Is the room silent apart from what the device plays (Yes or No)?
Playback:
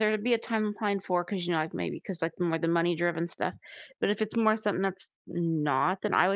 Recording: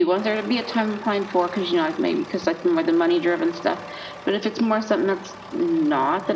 Yes